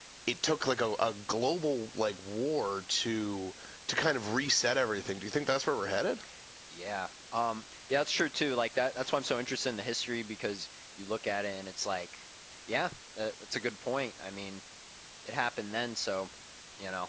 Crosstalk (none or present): none